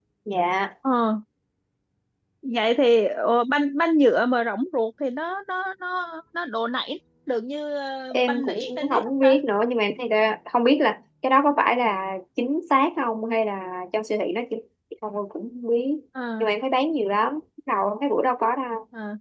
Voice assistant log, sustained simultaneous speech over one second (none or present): present